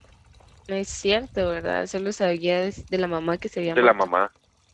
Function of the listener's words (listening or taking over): taking over